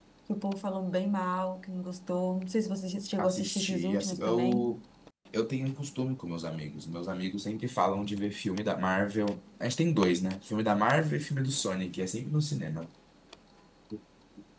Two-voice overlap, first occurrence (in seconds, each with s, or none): 3.2 s